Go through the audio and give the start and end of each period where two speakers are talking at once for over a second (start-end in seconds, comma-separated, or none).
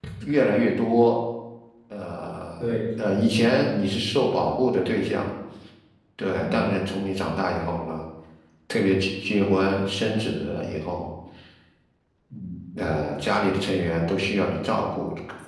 2.6-3.9